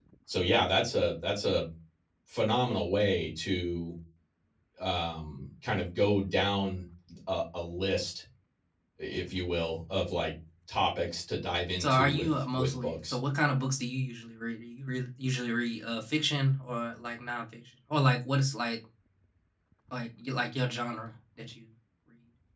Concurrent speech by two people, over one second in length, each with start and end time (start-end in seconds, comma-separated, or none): 11.8-13.2